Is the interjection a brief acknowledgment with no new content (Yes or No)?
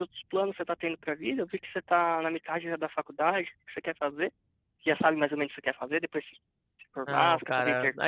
No